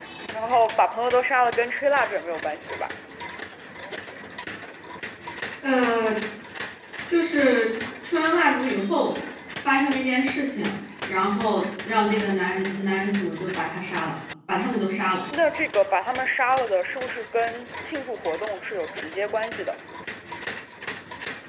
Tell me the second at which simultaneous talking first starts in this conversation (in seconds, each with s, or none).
none